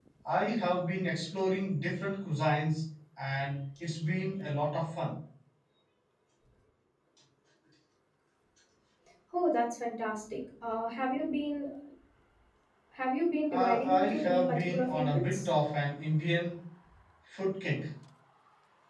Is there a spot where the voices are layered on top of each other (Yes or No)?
Yes